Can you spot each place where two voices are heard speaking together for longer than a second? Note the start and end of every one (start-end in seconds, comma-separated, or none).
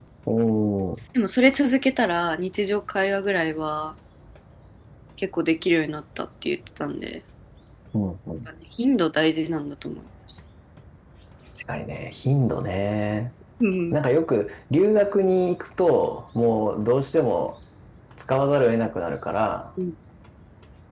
none